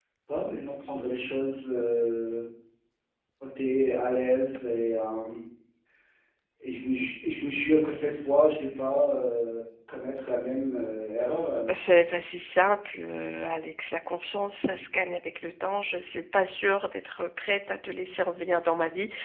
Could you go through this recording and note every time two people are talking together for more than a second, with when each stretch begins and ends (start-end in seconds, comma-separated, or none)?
none